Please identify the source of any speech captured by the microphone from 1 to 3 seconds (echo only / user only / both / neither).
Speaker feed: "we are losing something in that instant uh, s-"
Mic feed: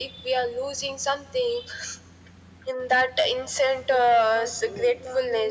echo only